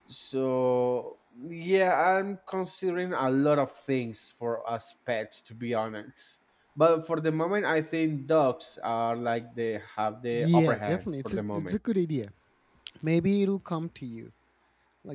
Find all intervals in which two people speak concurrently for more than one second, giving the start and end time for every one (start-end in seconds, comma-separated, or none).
10.3-11.8